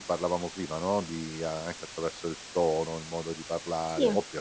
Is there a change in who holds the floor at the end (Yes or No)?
No